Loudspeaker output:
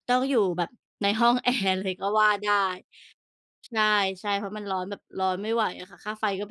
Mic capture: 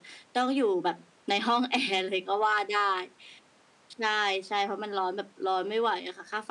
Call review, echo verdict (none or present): present